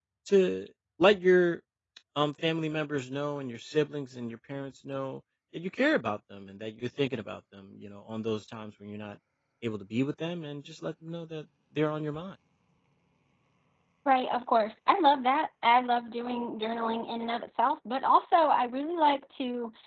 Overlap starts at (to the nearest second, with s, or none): none